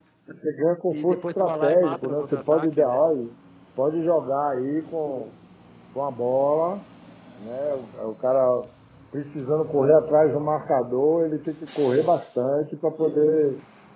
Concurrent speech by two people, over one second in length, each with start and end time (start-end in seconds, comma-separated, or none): 0.9-3.0